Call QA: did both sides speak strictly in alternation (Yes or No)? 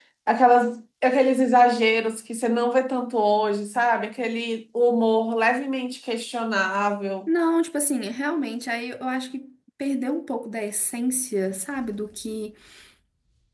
Yes